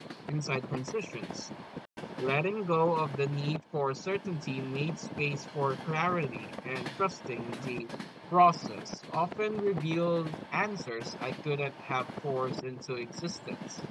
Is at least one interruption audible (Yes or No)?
No